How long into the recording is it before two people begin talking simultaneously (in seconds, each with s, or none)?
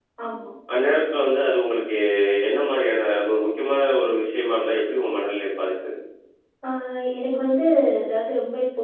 none